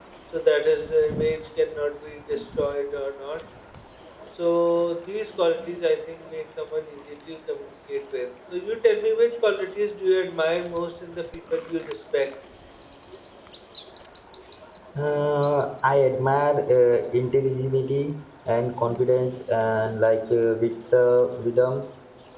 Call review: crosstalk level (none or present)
none